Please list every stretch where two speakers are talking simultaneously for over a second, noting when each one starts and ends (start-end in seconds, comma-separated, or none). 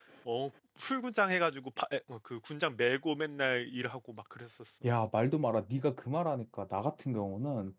none